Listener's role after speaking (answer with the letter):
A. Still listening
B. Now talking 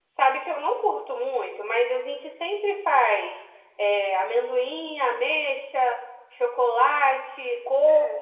B